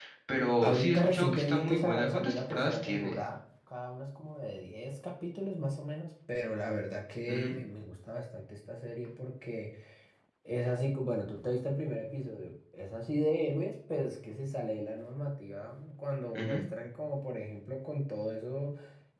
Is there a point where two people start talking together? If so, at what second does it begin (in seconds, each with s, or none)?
0.6 s